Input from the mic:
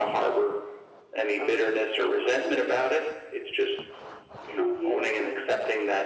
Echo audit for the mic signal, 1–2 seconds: echo only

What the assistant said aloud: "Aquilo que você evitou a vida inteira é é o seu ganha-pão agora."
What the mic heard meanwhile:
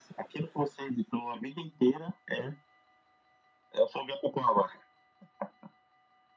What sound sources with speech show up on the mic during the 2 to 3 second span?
echo only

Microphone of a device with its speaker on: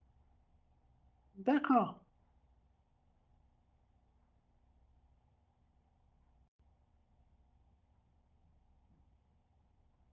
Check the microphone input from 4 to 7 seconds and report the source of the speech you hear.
neither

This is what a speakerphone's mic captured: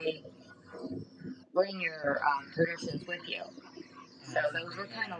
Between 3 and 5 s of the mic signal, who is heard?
both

